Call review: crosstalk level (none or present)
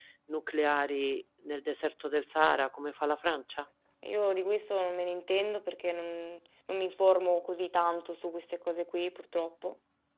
none